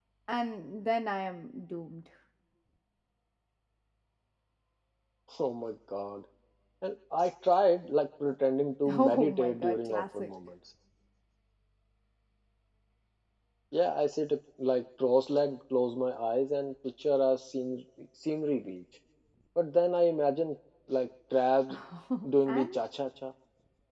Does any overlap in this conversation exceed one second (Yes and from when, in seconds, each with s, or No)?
Yes, from 8.9 s